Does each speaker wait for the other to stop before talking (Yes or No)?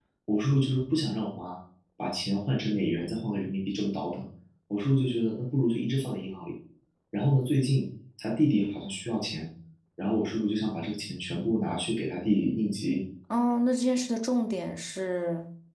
Yes